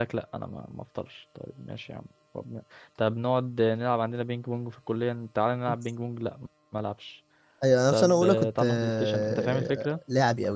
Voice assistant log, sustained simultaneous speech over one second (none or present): present